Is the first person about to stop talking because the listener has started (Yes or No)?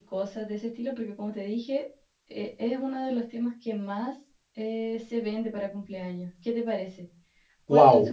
Yes